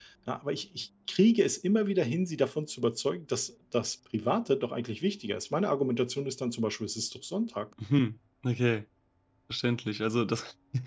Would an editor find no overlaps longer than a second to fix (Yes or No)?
Yes